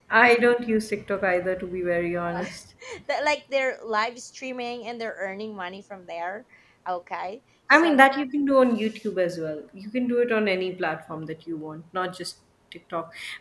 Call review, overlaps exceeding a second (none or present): none